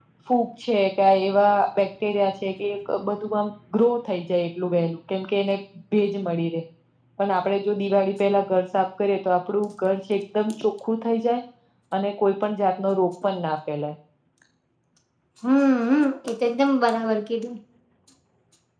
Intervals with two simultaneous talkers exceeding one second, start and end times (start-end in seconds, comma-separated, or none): none